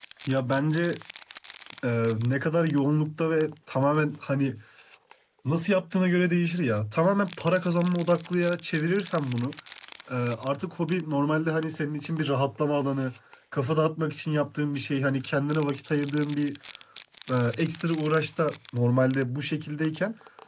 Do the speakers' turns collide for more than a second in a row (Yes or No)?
No